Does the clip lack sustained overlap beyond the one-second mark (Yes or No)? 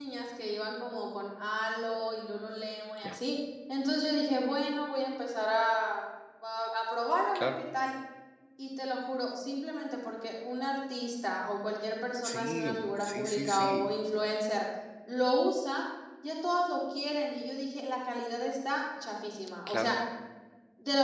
No